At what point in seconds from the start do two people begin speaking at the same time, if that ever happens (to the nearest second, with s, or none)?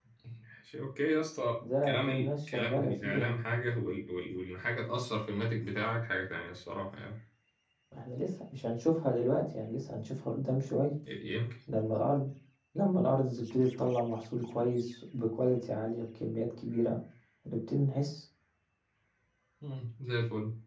2 s